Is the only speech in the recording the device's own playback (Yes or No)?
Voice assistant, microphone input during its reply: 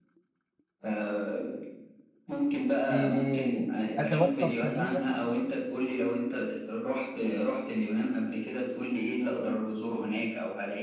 No